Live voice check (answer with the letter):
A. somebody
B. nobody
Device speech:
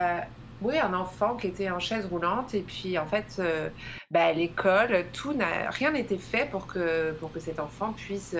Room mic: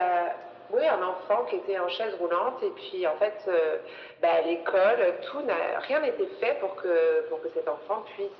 B